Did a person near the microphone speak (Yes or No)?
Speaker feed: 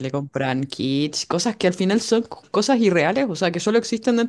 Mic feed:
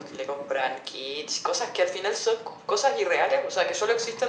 No